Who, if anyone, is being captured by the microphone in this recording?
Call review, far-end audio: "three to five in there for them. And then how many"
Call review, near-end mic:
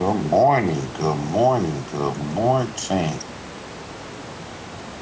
user only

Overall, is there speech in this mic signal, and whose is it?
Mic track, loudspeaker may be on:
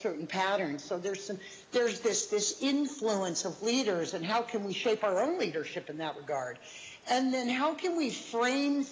echo only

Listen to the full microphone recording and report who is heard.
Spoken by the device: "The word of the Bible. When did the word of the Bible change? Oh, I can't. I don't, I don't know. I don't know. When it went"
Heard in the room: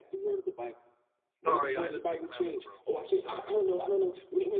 both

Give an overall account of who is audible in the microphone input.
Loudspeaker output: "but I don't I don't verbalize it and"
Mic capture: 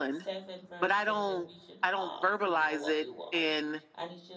both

